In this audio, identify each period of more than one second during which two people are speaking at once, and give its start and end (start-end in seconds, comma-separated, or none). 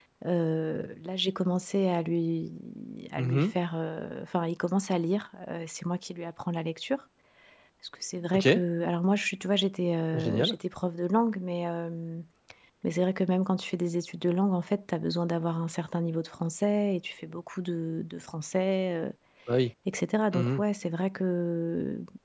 none